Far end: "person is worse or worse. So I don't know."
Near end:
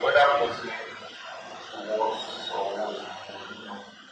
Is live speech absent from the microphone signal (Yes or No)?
Yes